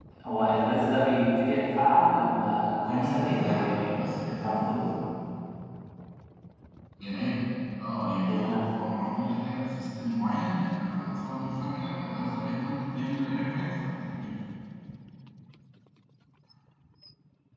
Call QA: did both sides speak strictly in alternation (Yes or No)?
No